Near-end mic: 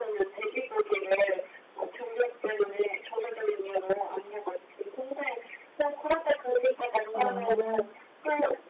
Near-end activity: present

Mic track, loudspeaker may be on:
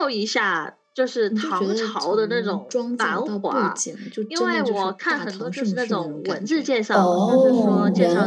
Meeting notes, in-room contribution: present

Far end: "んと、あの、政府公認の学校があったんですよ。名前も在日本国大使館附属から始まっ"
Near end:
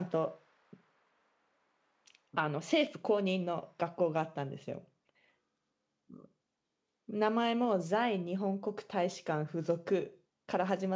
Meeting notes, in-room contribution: none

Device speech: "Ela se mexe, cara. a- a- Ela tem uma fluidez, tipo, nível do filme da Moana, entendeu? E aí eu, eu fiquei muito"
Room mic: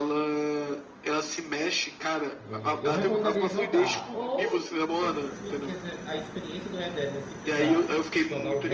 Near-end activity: present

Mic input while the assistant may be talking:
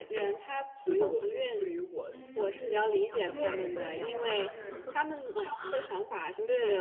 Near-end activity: present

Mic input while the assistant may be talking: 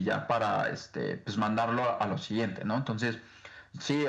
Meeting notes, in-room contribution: none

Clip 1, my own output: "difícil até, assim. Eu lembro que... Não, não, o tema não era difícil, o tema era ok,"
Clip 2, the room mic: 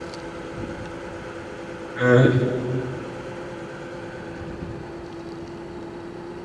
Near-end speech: present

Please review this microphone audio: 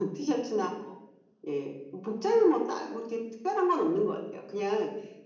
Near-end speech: none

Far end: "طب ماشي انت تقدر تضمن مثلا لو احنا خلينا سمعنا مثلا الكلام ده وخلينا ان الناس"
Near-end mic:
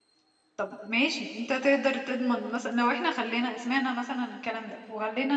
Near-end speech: none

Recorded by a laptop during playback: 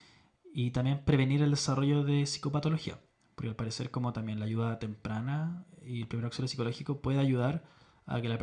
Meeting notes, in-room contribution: present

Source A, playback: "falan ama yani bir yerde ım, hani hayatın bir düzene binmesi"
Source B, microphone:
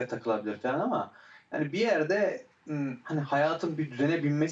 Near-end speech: none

